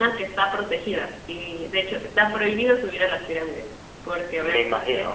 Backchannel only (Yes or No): Yes